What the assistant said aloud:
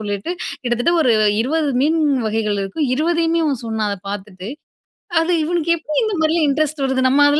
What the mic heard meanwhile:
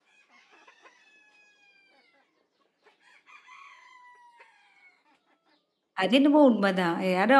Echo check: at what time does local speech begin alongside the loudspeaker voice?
6 s

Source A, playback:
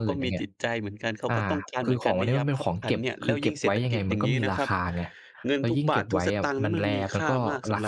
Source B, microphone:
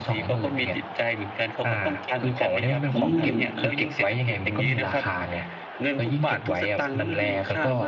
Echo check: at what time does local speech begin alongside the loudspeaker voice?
3 s

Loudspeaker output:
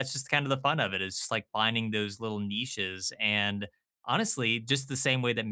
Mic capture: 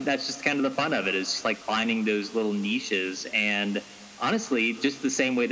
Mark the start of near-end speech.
none

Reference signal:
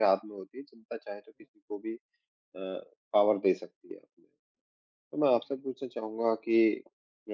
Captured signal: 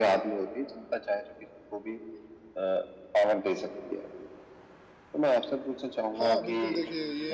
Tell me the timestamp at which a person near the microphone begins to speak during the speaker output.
6 s

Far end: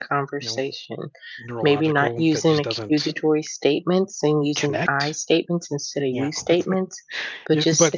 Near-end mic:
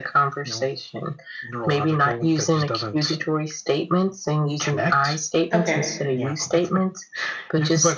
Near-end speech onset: 6 s

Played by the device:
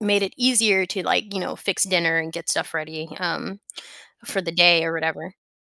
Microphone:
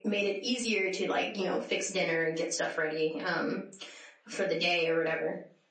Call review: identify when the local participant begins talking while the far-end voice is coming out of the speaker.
none

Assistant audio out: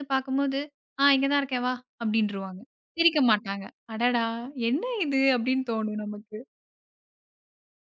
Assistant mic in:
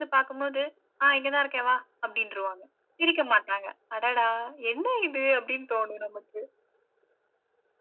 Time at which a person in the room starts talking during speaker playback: none

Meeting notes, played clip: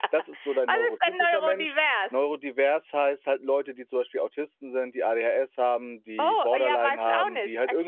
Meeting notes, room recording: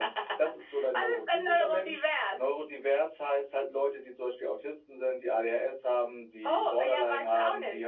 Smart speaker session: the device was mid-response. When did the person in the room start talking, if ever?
none

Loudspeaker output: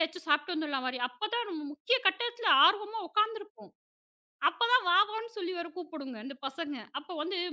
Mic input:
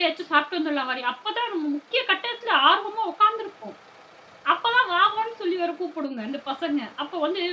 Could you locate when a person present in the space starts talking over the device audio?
none

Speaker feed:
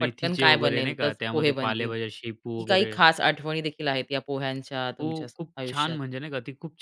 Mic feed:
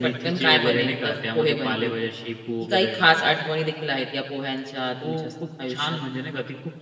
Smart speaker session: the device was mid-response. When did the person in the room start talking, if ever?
none

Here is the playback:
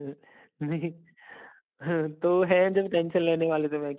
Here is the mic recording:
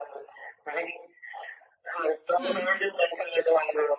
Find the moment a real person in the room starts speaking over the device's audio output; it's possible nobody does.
2 s

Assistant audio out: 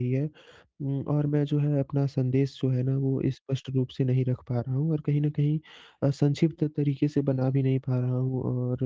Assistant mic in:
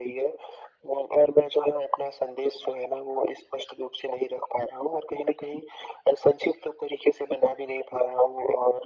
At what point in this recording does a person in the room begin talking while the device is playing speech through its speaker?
none

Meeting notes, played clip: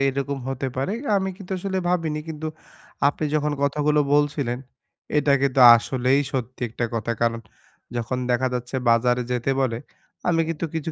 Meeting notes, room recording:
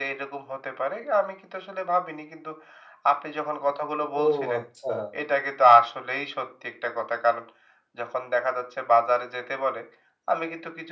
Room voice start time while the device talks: 4 s

